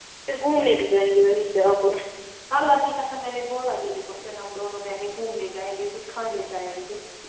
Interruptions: none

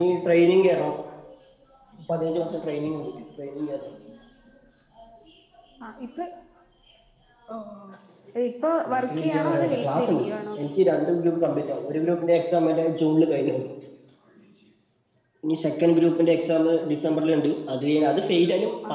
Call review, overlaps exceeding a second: present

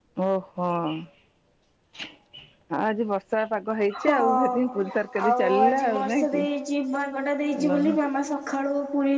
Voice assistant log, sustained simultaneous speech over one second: present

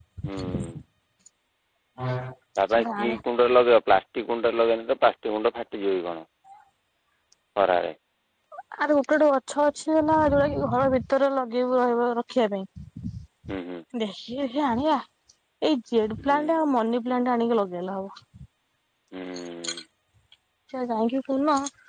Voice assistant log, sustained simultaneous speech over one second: none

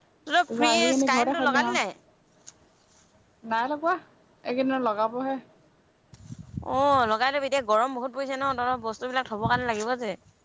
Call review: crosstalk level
present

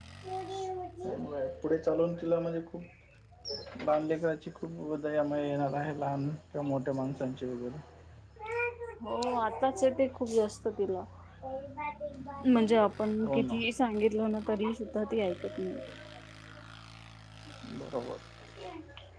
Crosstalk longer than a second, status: none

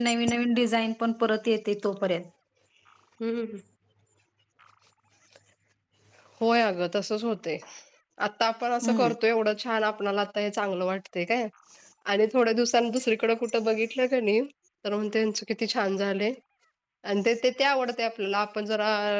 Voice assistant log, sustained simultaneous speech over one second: none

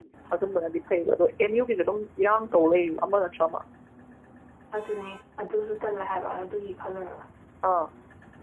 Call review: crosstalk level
none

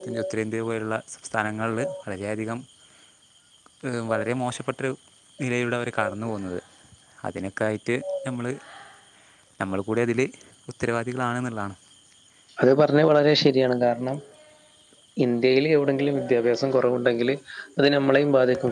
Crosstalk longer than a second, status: none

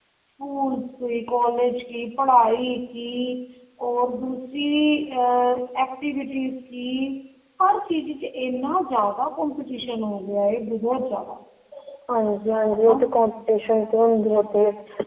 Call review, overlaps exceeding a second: none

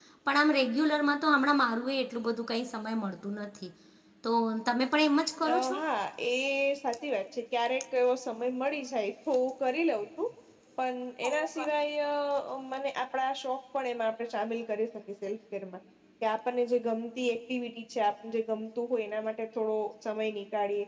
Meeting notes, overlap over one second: none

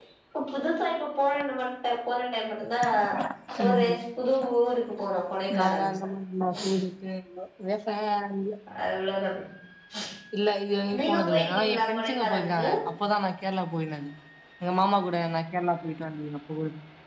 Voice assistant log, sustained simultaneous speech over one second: present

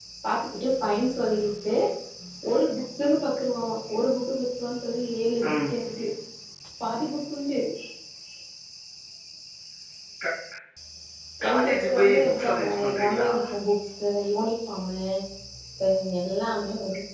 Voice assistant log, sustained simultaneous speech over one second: present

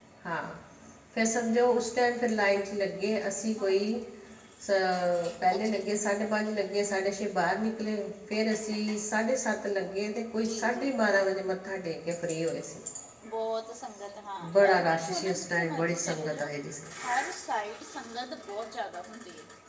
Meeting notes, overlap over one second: present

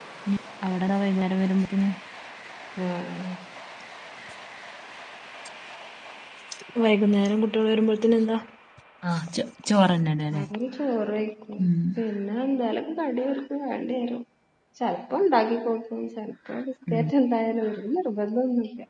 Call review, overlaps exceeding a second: none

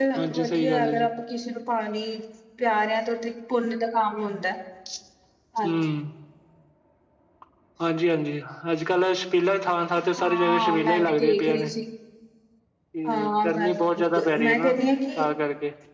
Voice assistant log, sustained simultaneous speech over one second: present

